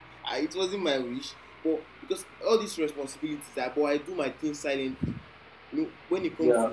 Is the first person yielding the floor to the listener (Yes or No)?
No